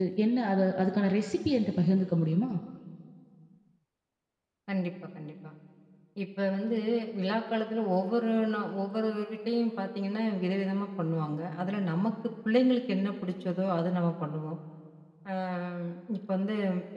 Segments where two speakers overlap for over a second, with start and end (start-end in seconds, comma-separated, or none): none